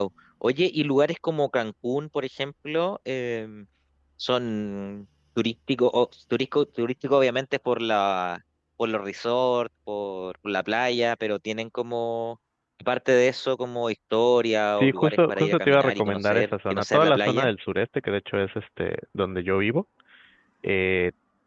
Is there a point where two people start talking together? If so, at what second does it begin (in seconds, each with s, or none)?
14.8 s